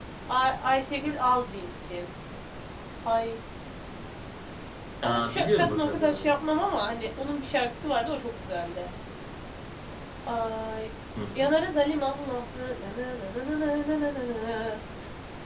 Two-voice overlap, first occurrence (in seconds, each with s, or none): 5.0 s